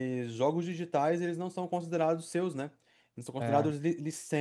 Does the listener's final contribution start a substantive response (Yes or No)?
No